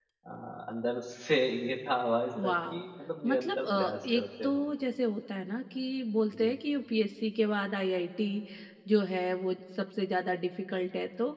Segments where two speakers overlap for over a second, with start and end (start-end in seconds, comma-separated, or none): 3.2-4.7